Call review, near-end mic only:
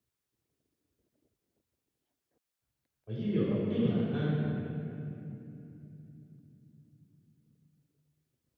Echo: none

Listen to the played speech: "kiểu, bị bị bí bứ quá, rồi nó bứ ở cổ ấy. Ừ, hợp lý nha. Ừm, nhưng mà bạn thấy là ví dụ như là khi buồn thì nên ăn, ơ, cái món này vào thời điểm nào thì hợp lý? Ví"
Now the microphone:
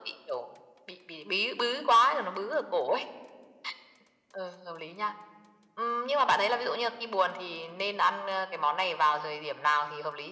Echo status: present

